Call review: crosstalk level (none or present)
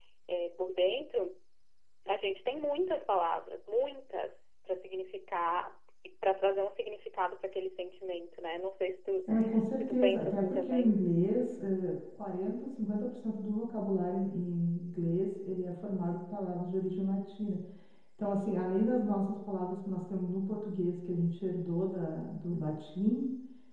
present